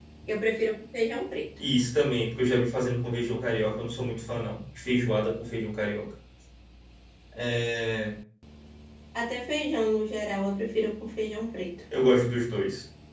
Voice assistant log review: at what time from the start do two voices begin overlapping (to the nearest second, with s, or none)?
none